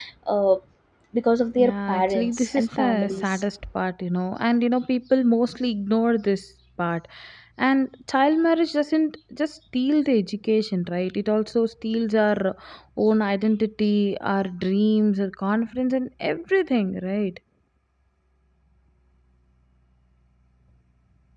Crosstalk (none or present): present